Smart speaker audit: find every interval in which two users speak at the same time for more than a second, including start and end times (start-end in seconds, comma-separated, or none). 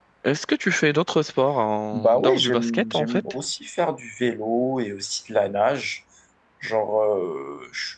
1.9-3.2